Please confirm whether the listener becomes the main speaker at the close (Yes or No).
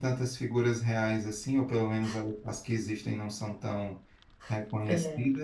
No